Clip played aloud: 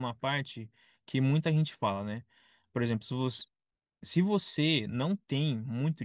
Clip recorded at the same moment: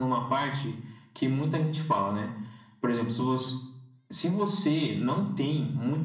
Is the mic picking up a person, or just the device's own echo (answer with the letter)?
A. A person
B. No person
B